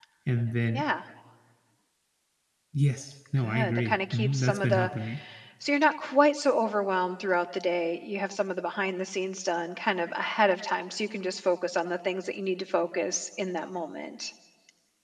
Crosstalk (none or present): present